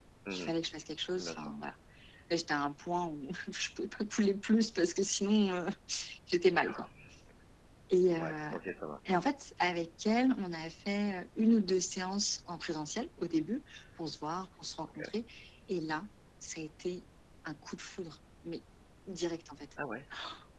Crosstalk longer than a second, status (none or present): none